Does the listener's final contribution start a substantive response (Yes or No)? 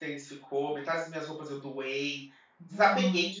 No